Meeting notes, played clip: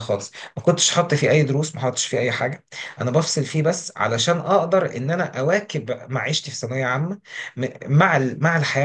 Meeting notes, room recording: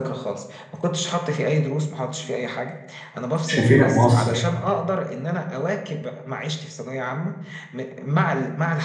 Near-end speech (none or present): present